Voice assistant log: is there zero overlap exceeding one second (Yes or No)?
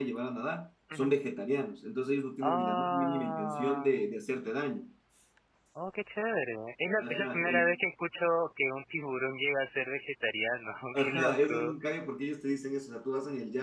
No